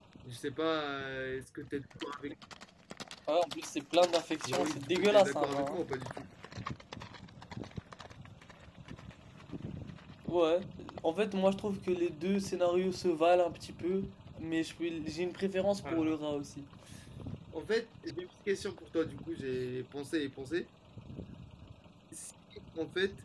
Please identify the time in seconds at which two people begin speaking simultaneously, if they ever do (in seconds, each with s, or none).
4.5 s